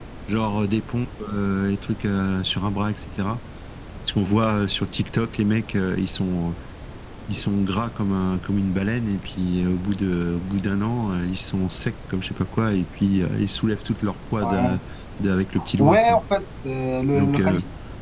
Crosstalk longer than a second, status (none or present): none